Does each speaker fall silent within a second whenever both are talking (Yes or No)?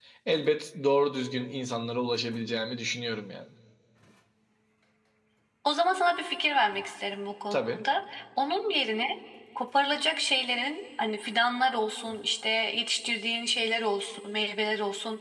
Yes